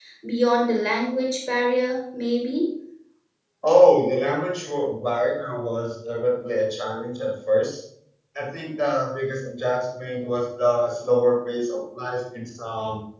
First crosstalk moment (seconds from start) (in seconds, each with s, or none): none